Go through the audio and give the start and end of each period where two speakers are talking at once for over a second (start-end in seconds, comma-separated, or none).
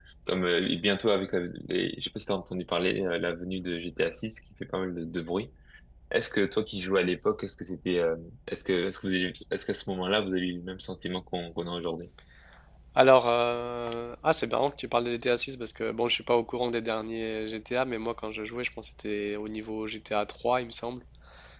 none